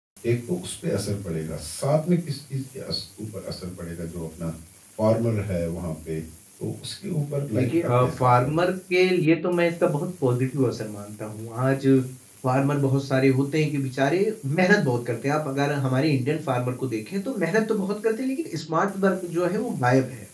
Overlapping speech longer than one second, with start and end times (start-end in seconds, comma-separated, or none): 7.5-8.8